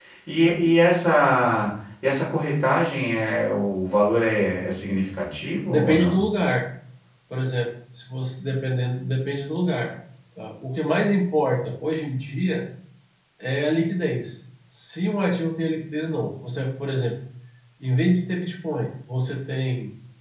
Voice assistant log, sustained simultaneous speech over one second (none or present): none